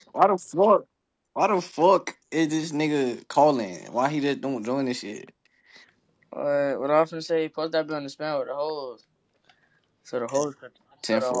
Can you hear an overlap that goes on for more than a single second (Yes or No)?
No